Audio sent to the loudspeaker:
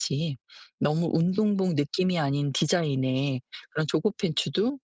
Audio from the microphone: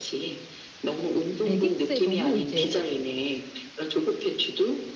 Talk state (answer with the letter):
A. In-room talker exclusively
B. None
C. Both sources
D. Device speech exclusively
C